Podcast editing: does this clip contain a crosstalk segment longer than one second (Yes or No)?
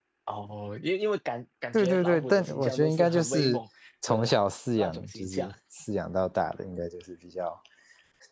Yes